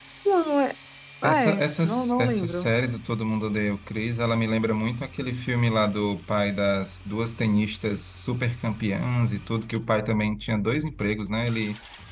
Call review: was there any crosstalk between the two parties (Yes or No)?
Yes